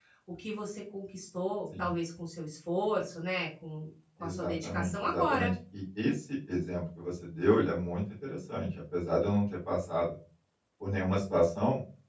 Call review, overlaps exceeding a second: present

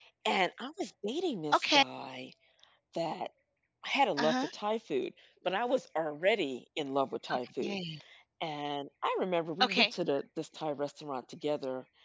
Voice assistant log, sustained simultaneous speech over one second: none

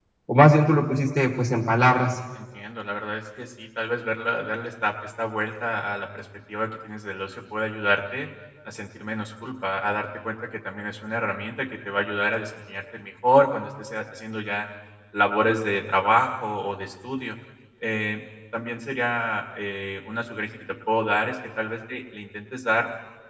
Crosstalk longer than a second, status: none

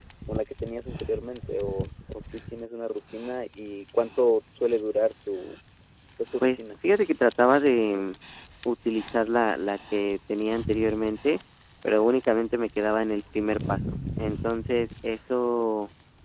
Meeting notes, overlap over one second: none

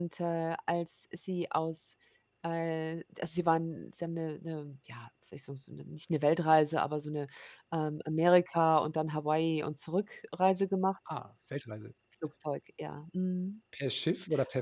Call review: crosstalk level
none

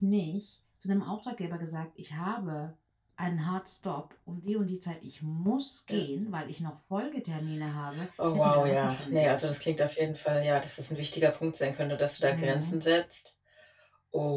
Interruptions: present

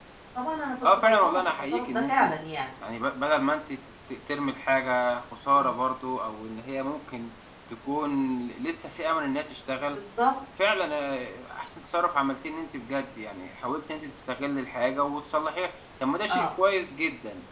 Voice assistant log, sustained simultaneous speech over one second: present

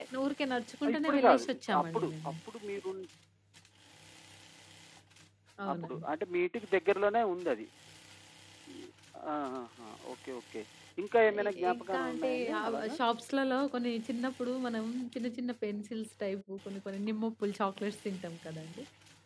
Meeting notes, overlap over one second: present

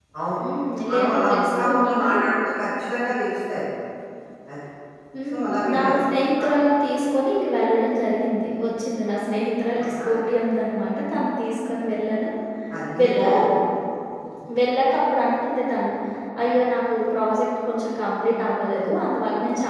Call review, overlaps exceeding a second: present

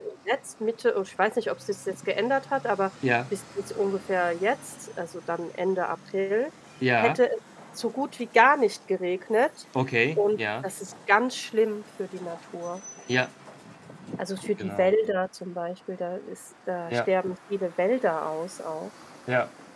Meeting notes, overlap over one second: none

